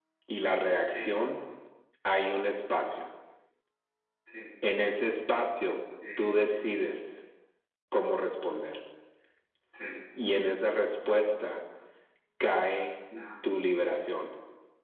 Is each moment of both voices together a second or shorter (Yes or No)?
Yes